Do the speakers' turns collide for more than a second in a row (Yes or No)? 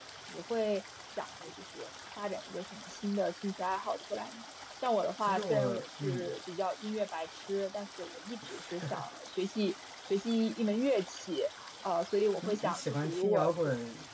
Yes